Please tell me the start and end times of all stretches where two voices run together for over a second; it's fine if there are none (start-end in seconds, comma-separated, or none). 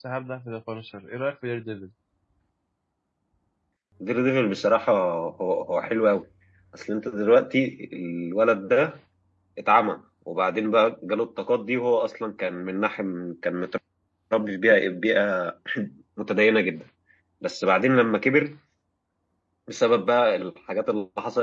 none